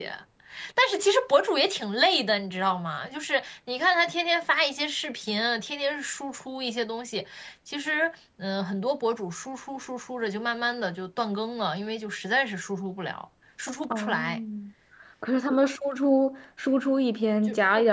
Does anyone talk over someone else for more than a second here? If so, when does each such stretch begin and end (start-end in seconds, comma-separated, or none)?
none